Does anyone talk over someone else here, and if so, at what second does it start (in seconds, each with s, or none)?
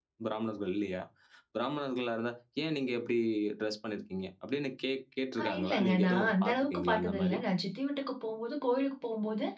5.4 s